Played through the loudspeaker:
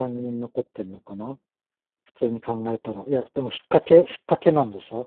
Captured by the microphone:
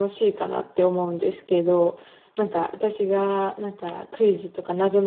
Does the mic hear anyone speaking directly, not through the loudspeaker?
Yes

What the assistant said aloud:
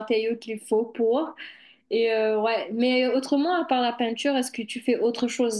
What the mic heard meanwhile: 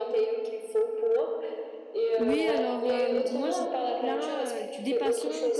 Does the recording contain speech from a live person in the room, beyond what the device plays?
Yes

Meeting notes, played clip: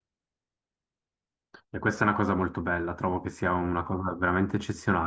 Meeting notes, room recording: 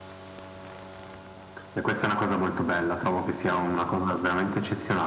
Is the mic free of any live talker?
Yes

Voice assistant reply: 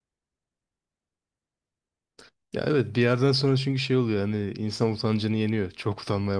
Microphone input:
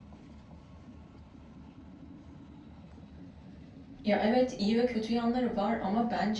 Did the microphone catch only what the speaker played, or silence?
No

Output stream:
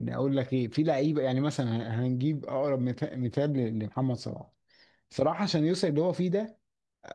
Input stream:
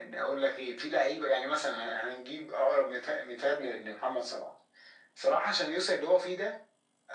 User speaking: No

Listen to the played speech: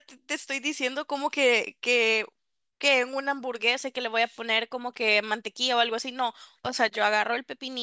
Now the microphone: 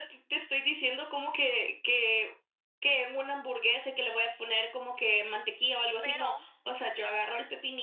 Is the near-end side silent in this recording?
No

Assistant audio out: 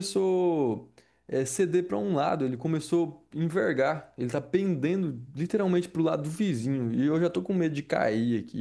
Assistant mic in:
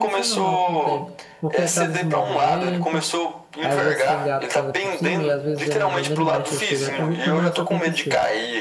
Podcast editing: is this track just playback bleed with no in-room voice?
No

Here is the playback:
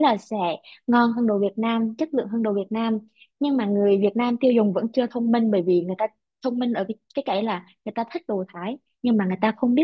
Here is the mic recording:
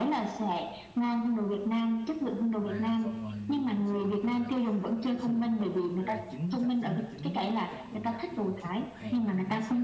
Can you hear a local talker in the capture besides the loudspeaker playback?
Yes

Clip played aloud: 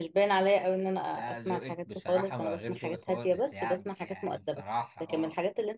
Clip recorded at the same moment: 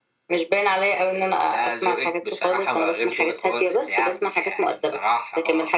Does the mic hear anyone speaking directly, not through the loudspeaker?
No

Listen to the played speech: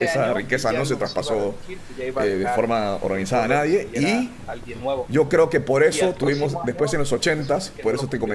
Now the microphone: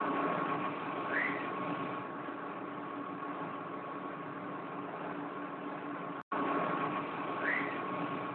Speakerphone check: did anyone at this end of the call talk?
No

